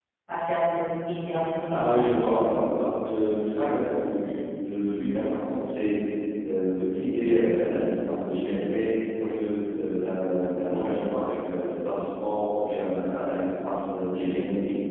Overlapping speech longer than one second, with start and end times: none

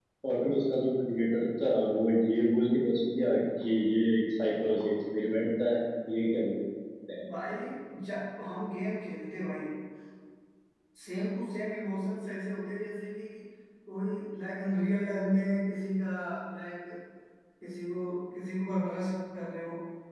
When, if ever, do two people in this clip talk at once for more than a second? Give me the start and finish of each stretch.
none

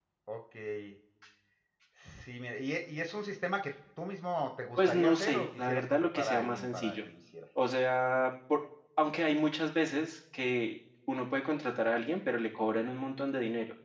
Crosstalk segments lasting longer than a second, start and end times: 4.8-7.0

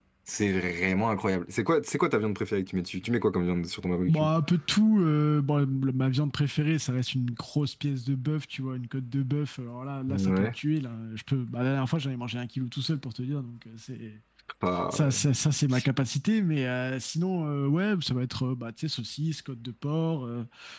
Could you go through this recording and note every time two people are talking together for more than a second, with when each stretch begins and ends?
none

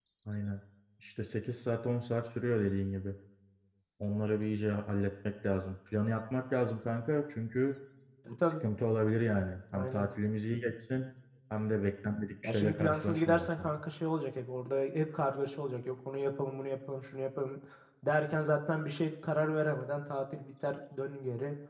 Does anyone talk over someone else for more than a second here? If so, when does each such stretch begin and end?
12.4-13.7

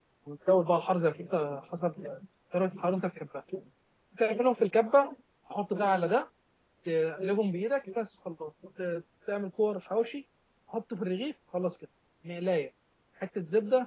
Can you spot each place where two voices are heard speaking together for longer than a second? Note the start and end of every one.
none

